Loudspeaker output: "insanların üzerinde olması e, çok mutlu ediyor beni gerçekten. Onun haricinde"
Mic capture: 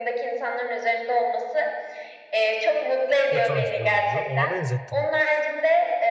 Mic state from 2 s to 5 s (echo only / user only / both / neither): both